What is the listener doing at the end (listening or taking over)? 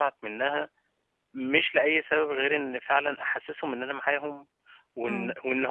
listening